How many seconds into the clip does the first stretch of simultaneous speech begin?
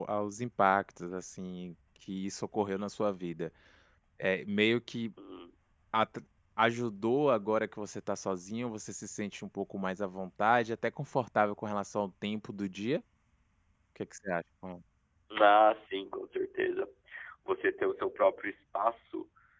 none

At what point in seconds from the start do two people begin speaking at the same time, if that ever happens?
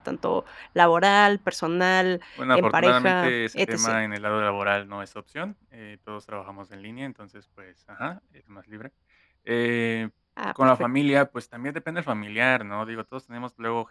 3 s

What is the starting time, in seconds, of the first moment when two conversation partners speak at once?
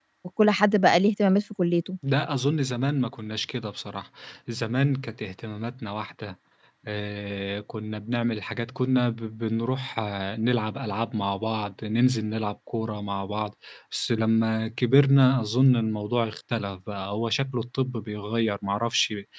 none

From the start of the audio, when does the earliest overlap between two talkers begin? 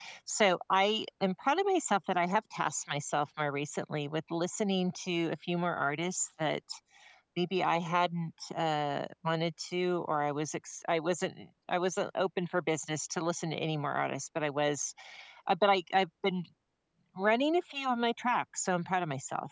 none

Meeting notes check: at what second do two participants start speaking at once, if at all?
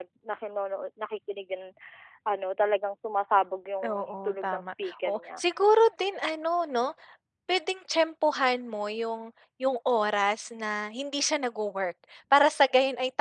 4 s

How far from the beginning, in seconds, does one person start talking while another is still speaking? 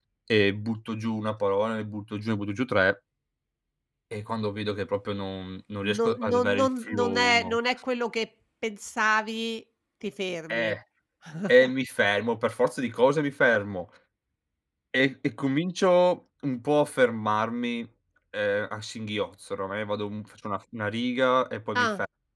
6 s

